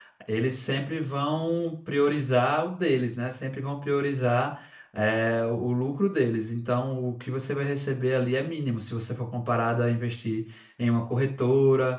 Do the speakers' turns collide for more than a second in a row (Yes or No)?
No